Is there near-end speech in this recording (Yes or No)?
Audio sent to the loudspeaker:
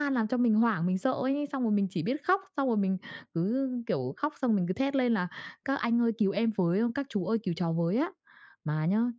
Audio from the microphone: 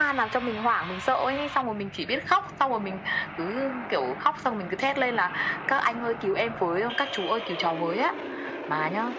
No